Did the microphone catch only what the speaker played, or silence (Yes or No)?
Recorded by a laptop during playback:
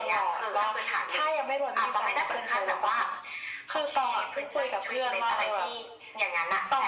Yes